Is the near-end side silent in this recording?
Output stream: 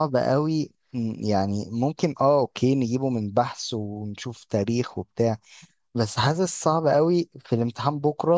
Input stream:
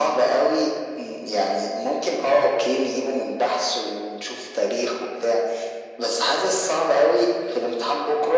Yes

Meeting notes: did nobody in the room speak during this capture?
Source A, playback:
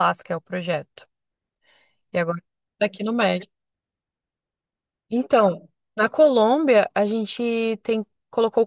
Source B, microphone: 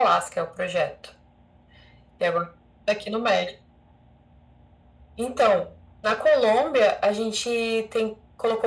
Yes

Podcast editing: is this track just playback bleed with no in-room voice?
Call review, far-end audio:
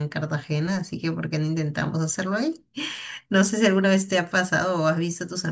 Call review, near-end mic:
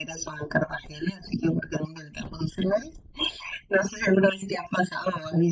Yes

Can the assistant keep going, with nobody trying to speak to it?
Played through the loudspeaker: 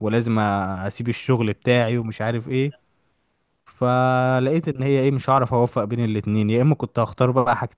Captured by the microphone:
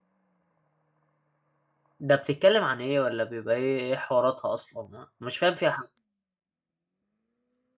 No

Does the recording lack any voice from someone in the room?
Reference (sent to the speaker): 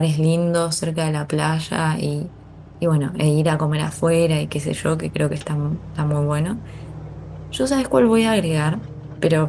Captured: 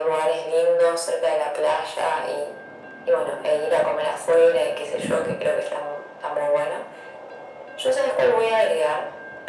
Yes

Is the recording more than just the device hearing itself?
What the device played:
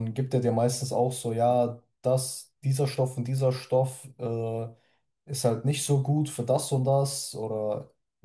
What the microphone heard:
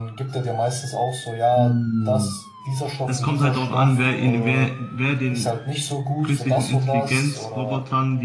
Yes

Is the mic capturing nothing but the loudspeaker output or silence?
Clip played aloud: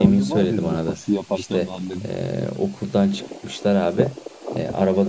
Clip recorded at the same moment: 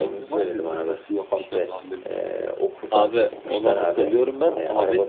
No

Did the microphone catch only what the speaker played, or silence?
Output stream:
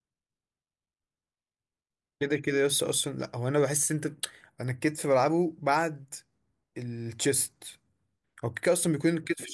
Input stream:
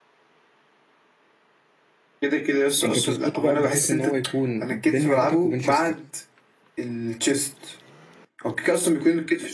No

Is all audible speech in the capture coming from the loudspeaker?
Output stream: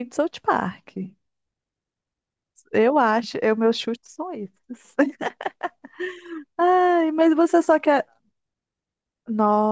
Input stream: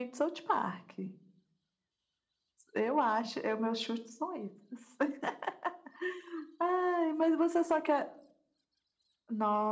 Yes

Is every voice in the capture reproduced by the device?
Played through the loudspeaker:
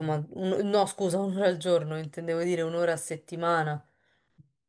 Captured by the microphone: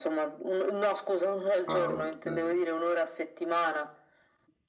No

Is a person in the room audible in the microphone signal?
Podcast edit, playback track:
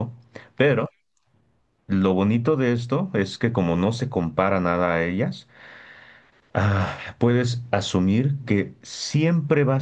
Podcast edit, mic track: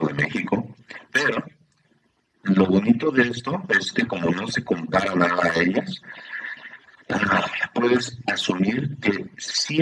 No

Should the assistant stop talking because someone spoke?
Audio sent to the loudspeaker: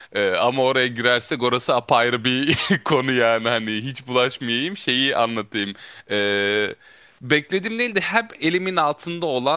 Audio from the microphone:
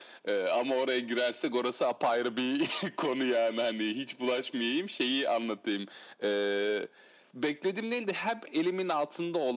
No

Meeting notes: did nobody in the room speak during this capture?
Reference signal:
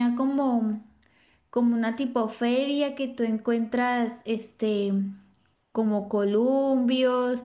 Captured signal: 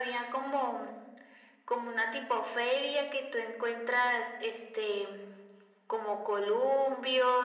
Yes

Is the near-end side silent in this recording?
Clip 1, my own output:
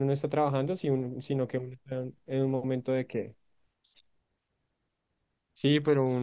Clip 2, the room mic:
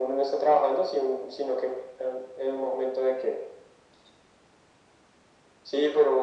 Yes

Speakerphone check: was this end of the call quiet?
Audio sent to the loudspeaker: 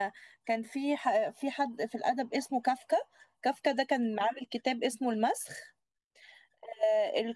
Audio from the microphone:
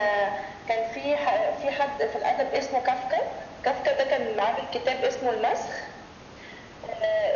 Yes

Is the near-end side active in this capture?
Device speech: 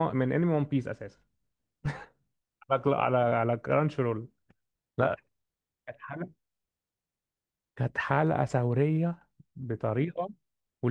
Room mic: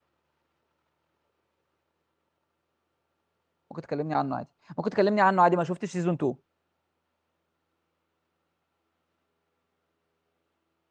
Yes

